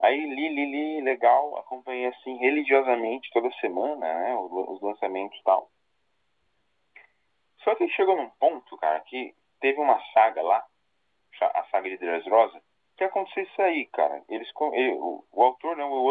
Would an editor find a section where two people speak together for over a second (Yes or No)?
No